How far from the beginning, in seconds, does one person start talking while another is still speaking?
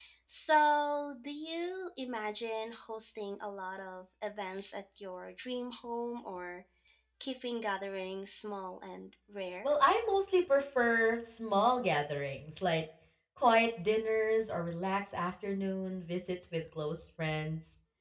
none

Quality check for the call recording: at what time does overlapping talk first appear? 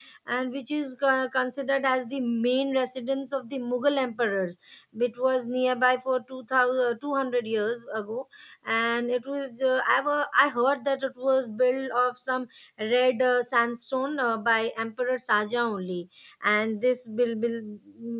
none

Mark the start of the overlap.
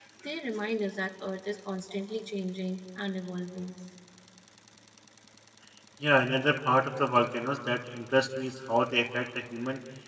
none

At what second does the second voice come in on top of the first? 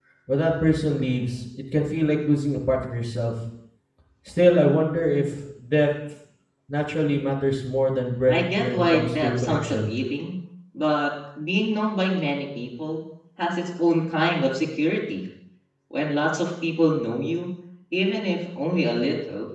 8.3 s

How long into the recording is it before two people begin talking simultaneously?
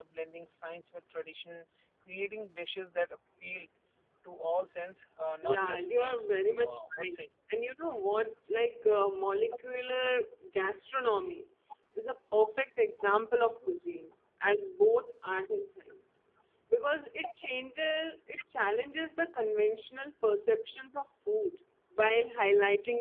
5.4 s

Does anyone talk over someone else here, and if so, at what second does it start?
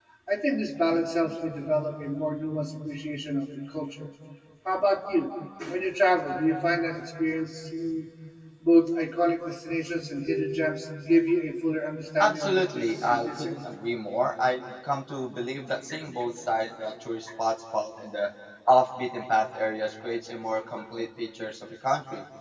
12.2 s

